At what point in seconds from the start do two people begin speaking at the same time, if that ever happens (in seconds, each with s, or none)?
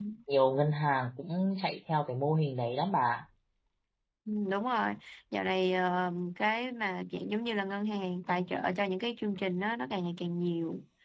none